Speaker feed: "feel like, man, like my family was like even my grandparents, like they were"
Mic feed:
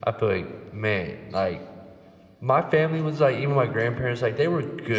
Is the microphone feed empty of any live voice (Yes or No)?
Yes